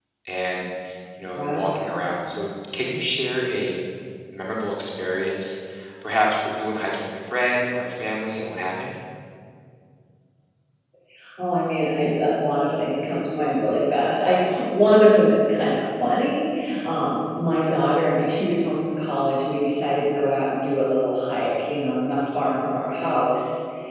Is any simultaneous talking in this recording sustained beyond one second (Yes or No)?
No